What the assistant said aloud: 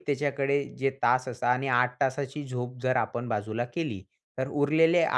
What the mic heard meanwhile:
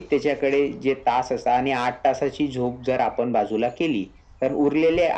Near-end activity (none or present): none